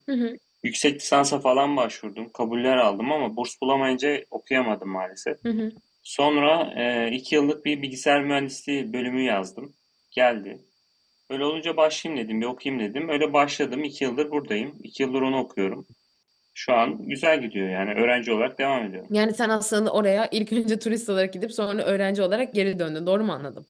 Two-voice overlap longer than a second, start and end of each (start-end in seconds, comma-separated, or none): none